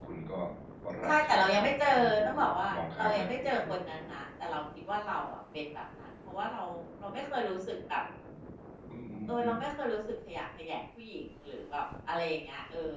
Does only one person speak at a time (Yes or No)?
No